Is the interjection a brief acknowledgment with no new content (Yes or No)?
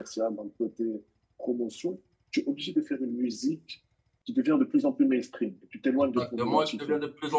No